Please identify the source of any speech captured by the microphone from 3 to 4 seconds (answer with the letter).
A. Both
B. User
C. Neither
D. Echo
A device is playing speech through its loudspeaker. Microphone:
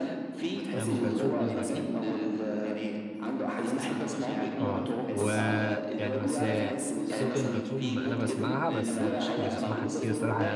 D